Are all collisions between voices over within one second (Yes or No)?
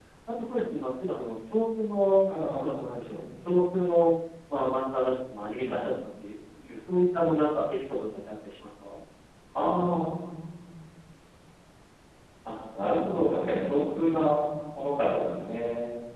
Yes